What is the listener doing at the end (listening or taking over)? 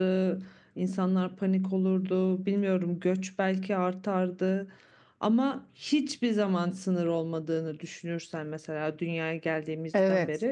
listening